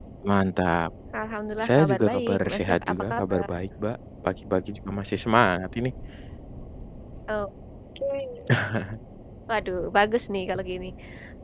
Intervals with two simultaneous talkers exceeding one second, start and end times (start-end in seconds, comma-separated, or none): 1.6-3.5